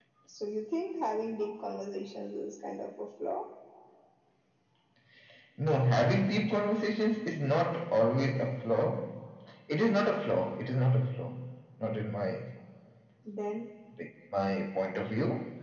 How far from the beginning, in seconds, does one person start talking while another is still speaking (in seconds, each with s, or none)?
none